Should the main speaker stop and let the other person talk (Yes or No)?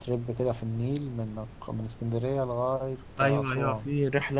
Yes